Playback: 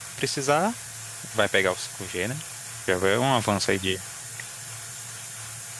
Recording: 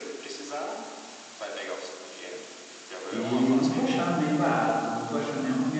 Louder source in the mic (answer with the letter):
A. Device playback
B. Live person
B